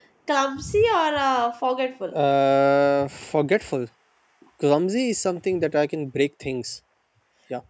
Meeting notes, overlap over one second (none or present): none